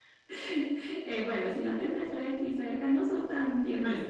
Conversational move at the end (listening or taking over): taking over